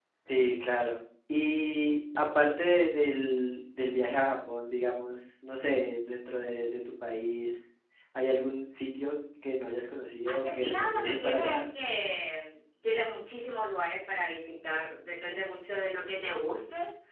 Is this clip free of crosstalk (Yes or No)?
No